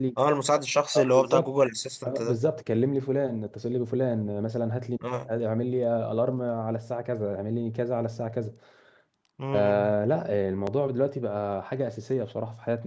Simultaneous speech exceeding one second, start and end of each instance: none

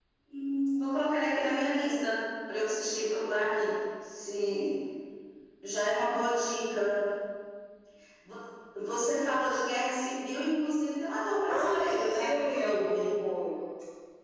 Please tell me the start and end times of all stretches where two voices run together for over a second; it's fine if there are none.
11.5-13.1

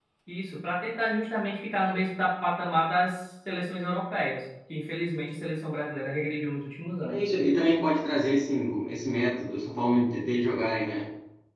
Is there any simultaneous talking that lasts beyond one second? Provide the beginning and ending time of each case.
none

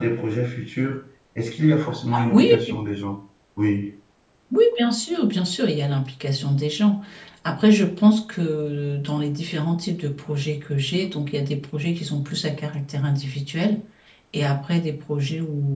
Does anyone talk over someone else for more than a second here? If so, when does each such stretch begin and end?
none

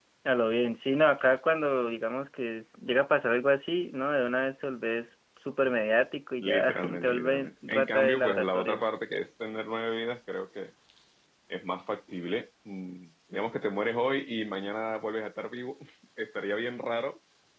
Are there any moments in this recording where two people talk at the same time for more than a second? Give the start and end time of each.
6.4-8.8

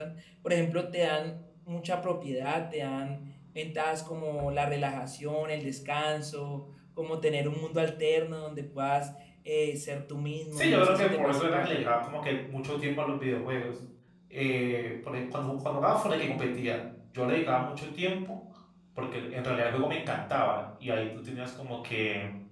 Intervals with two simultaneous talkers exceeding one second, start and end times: 10.5-11.8

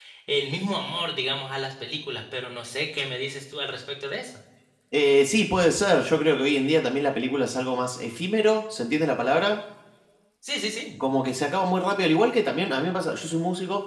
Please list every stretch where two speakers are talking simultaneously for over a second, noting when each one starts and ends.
none

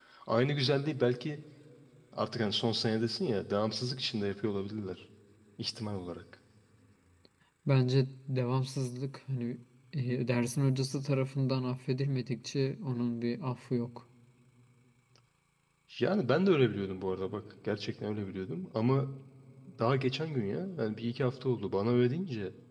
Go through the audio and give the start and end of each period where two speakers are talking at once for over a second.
none

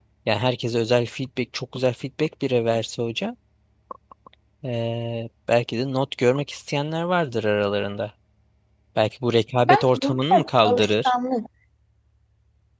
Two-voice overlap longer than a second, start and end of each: 9.7-11.1

